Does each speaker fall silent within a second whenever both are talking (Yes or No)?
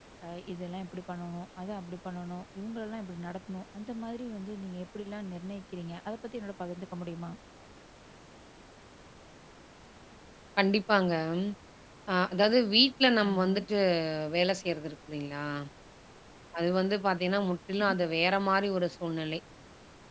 Yes